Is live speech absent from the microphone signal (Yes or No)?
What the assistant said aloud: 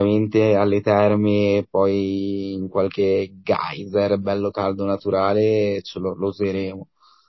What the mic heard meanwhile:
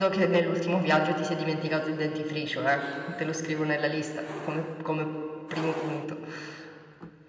No